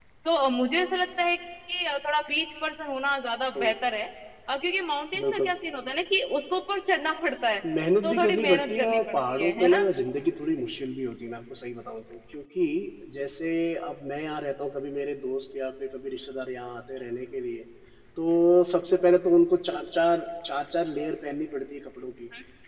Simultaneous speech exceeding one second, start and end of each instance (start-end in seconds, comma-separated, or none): 8.0-9.8